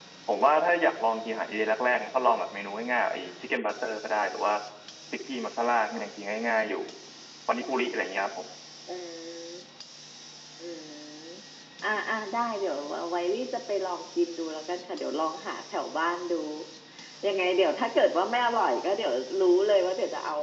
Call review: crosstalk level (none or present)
none